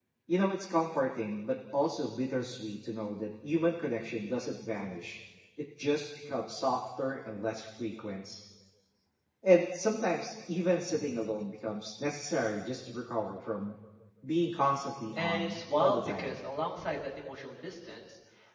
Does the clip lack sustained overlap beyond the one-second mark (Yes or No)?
No